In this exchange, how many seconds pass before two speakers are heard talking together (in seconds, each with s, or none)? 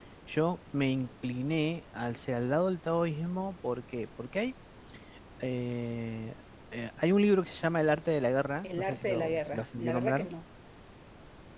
8.6 s